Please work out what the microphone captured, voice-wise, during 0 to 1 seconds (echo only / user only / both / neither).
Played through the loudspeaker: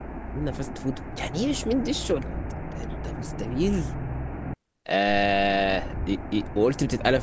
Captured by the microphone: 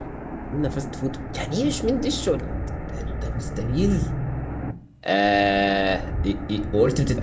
echo only